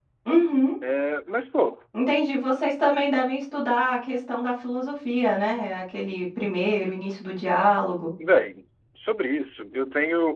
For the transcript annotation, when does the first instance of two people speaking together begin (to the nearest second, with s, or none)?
none